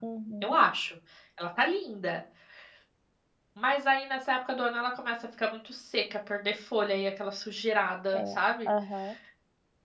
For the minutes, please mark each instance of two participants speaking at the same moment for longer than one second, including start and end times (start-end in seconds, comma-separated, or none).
none